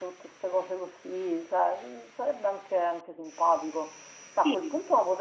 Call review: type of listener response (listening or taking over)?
listening